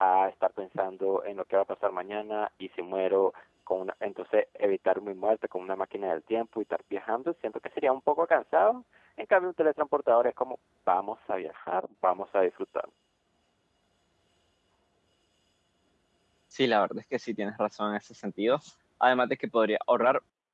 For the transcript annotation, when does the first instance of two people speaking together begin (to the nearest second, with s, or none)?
none